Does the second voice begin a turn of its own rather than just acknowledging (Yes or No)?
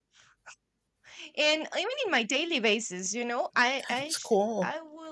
No